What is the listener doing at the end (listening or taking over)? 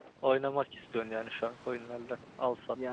taking over